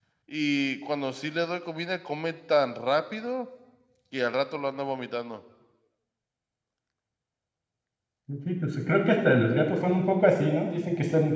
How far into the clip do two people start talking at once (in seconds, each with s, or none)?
none